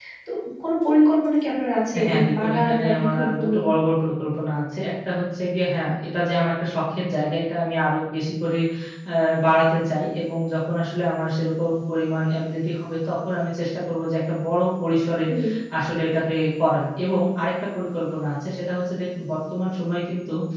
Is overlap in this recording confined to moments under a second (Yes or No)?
No